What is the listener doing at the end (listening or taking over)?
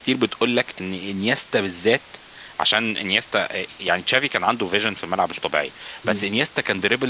listening